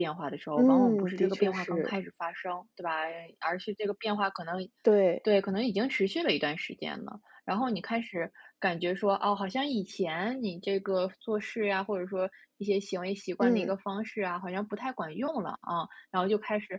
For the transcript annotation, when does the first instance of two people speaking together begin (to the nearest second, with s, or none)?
1 s